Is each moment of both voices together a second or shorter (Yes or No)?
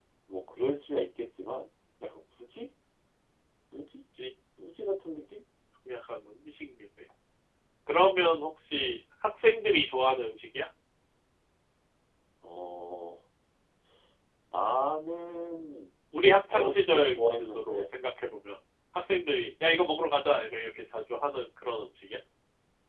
No